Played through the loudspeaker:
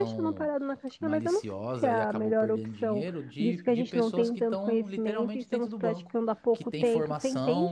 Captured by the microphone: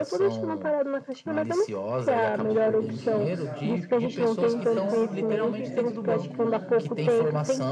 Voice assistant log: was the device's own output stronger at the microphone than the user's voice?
Yes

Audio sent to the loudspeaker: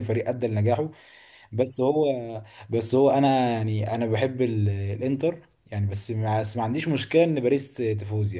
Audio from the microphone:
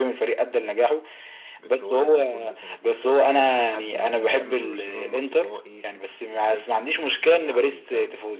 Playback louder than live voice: Yes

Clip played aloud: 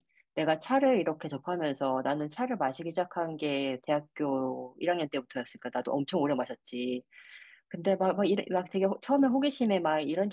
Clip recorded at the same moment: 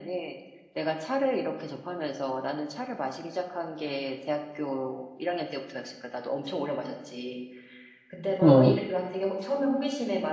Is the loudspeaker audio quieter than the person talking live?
Yes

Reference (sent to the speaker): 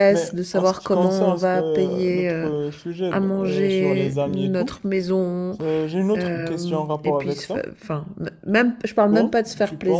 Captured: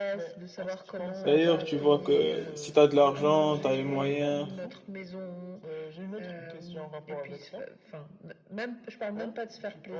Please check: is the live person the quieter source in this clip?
No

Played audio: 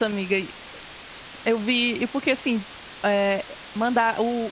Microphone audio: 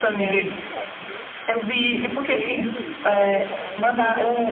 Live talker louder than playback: No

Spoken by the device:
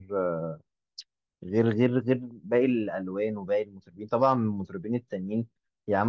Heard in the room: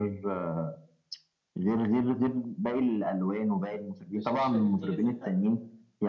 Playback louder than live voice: Yes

